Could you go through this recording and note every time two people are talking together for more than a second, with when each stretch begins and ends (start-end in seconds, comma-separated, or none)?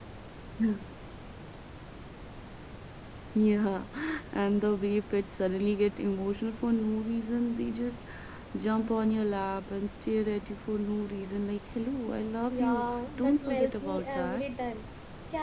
12.5-14.4